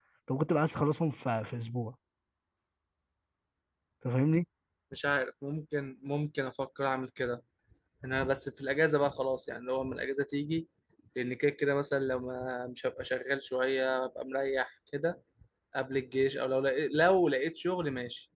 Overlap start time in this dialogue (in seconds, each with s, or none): none